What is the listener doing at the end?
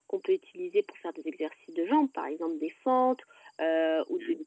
listening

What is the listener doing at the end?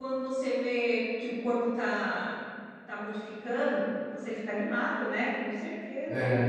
taking over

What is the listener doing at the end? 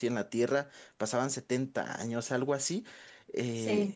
taking over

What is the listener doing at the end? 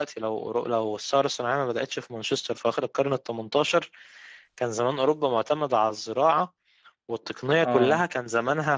listening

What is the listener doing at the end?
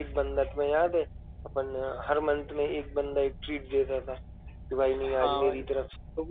listening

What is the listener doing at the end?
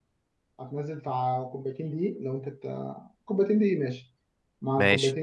taking over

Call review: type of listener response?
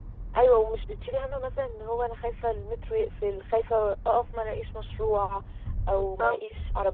listening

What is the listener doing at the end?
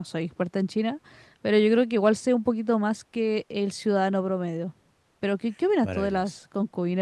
listening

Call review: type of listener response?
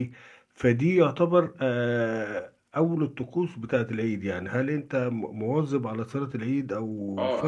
taking over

